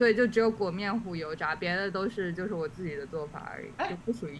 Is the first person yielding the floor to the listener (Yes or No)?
Yes